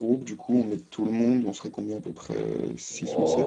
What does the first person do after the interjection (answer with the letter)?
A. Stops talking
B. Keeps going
A